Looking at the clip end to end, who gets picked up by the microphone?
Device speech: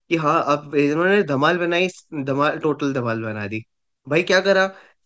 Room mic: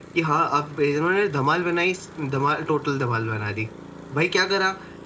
echo only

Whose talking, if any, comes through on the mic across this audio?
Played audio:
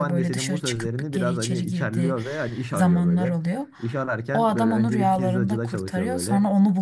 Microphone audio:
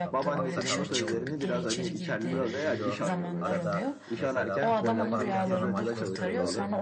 both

